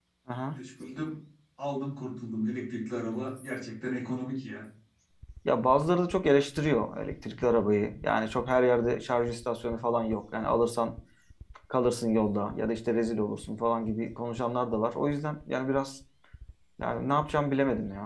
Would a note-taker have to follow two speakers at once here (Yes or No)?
No